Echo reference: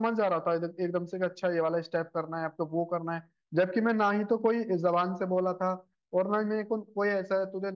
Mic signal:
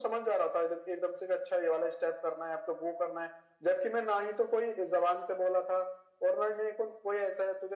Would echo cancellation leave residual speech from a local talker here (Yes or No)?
No